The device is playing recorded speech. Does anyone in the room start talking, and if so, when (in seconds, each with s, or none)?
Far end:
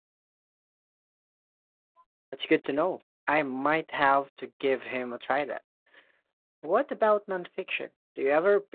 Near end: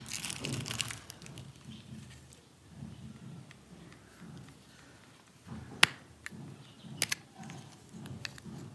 none